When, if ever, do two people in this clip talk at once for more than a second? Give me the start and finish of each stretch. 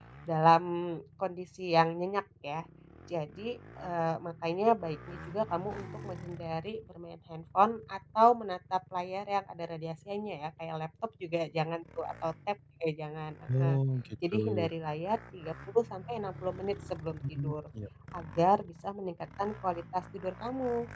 none

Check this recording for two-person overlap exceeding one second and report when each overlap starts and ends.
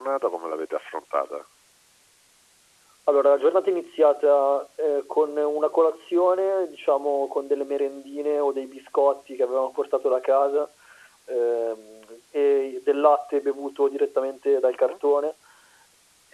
none

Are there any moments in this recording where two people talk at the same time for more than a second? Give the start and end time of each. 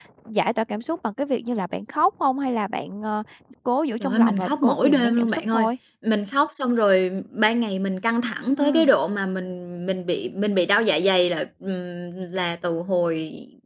4.0-5.7

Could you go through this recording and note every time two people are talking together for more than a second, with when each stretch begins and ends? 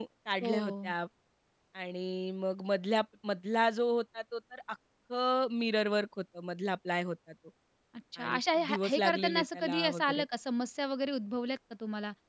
8.2-10.2

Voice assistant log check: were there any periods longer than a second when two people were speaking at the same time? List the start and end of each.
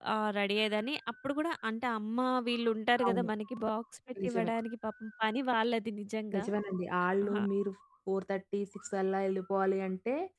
none

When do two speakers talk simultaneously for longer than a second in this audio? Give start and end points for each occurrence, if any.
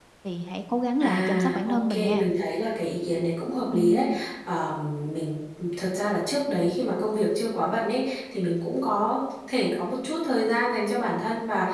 1.0-2.3

